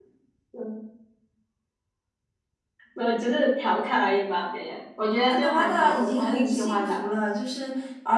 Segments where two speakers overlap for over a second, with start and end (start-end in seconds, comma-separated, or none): 5.3-7.0